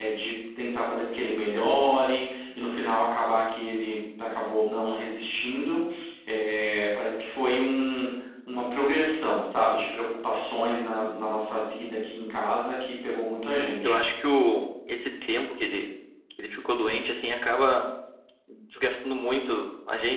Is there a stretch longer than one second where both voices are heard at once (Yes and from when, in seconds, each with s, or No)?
No